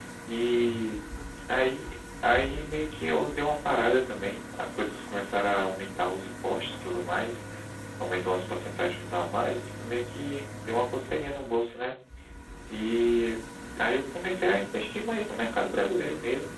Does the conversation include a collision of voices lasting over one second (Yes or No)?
No